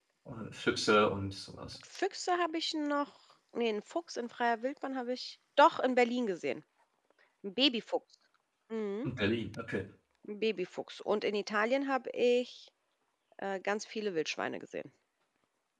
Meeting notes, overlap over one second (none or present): none